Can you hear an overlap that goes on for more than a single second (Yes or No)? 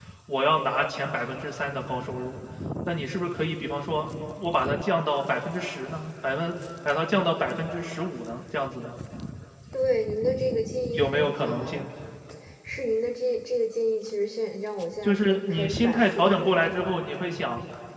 Yes